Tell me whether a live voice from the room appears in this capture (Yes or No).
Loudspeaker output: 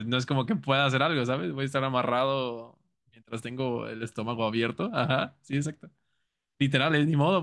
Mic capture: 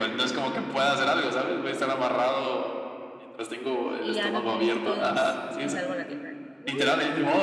Yes